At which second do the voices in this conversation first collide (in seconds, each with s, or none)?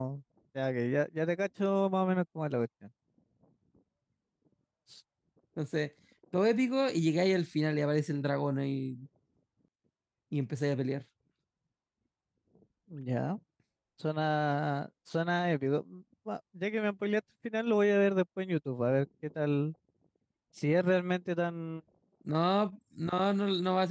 none